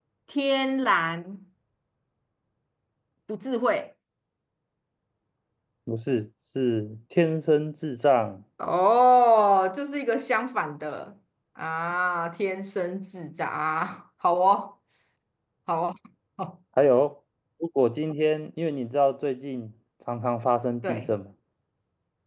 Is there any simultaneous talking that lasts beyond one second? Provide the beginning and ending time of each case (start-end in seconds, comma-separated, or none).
none